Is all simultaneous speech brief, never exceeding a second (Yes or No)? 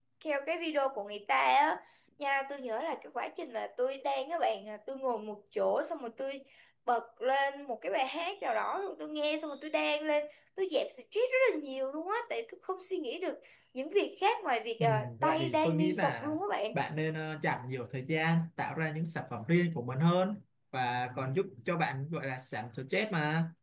No